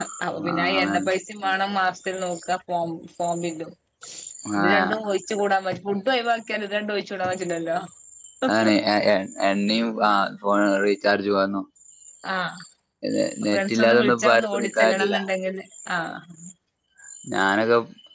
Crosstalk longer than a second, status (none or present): present